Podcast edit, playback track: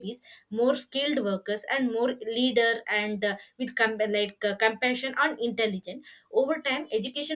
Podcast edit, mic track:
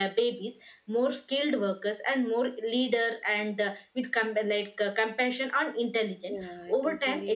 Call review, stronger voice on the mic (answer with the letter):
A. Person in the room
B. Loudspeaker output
B